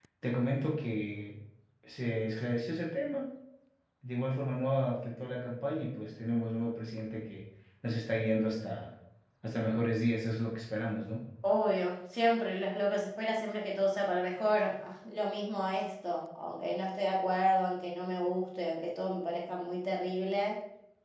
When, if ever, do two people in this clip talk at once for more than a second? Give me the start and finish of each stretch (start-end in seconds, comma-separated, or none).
none